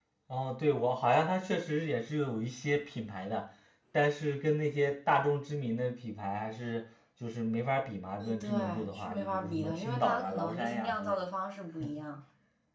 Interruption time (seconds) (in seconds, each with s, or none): 8.2 s